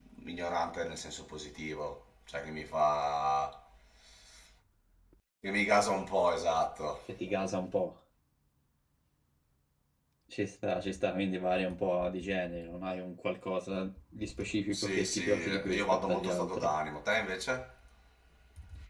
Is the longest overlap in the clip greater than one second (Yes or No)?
Yes